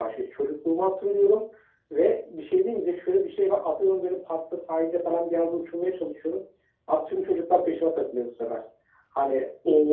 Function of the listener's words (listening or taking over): taking over